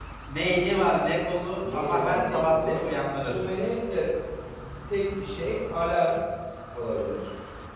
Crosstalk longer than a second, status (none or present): present